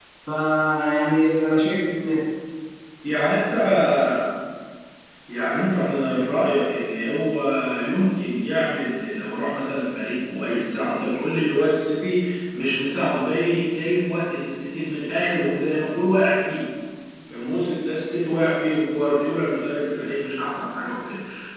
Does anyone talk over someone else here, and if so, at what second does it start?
none

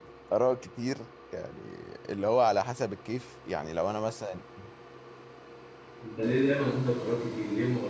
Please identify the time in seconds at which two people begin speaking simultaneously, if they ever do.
none

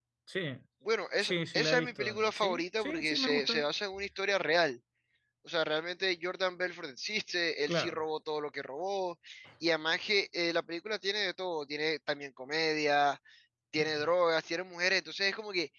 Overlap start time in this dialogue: 1.2 s

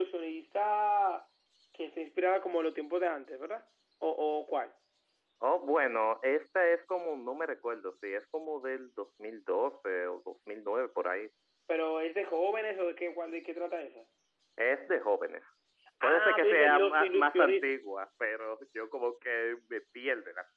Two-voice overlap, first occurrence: 16.0 s

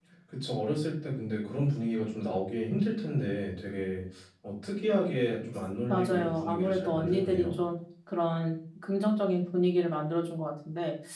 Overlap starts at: 5.9 s

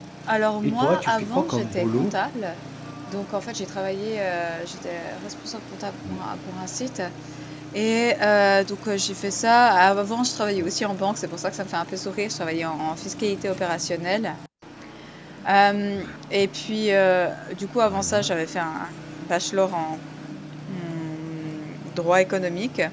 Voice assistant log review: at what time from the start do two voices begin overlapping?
0.6 s

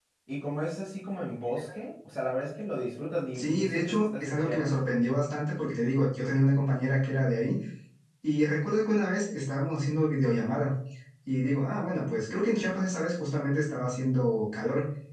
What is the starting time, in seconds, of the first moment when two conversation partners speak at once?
3.3 s

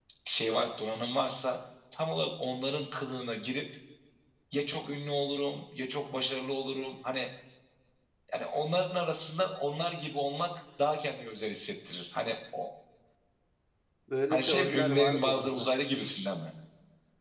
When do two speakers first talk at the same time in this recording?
14.3 s

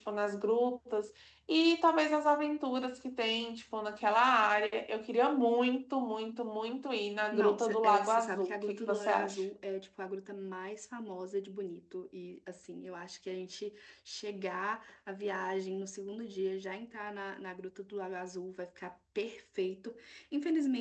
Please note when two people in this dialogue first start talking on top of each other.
7.3 s

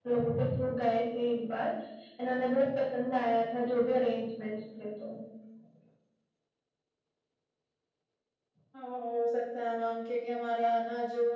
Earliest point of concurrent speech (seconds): none

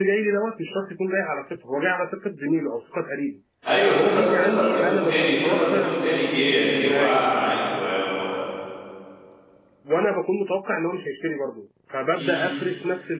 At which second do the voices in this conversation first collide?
3.9 s

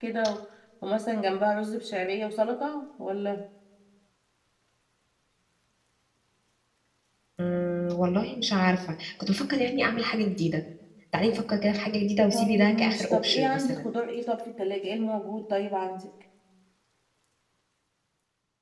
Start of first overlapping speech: 12.3 s

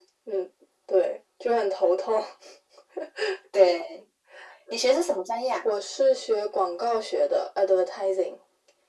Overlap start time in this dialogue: none

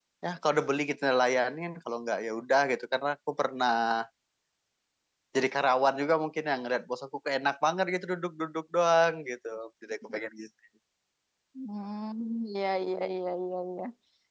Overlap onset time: none

